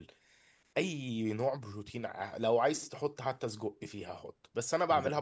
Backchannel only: Yes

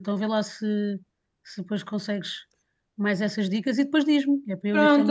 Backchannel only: No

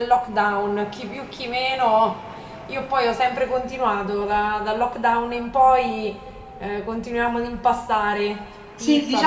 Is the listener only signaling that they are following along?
No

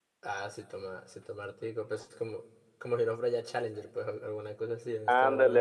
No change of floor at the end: No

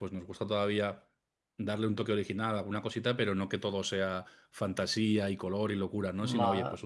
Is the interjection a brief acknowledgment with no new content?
Yes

